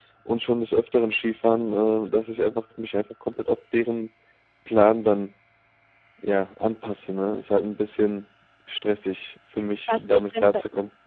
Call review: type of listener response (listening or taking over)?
taking over